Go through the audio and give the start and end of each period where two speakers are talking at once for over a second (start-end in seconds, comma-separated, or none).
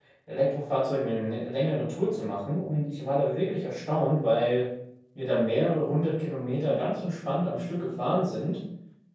none